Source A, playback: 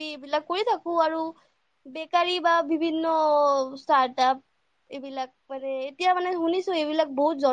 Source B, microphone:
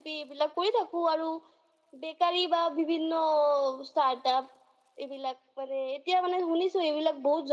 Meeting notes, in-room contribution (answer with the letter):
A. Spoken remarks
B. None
B